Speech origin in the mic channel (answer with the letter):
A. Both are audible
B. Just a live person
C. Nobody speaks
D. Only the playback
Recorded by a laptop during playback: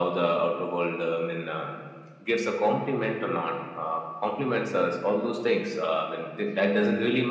D